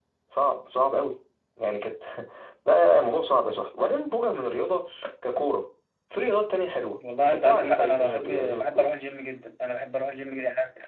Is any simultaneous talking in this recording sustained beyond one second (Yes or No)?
Yes